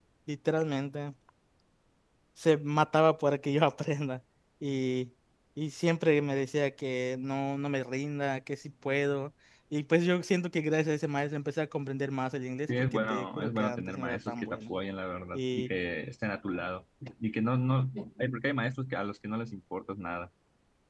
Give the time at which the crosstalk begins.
12.9 s

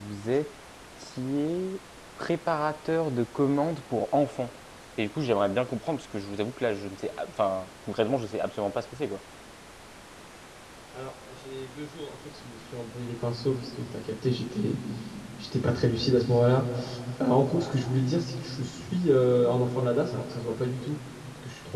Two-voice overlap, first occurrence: none

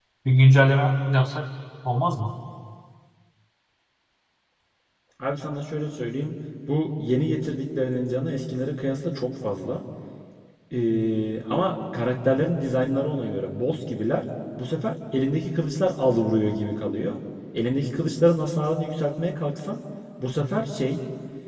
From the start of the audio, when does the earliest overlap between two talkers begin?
none

